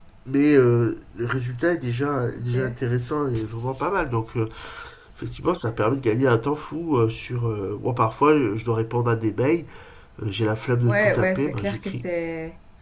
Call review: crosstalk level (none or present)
present